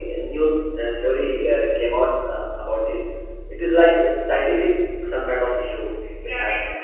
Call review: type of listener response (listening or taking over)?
taking over